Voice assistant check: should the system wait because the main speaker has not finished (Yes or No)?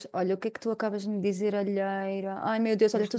Yes